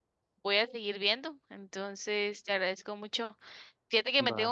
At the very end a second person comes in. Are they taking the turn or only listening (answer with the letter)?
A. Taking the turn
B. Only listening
B